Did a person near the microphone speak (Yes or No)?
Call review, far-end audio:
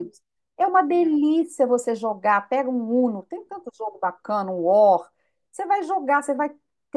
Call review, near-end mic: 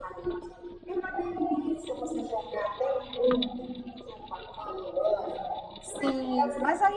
Yes